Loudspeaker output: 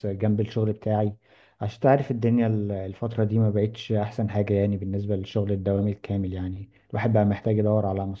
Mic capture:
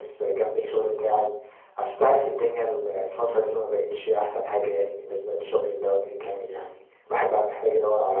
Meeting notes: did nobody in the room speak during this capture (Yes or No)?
Yes